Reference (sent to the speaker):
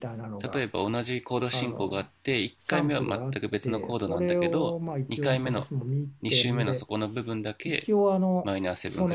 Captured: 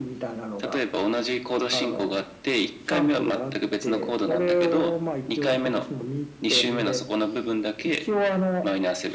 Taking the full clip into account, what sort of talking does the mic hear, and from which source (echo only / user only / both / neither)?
echo only